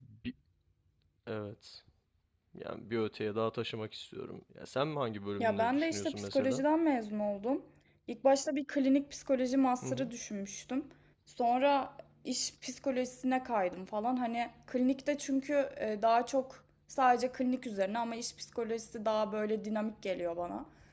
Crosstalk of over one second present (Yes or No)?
Yes